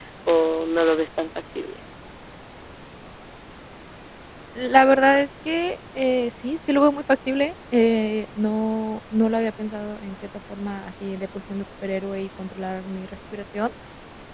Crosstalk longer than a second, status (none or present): none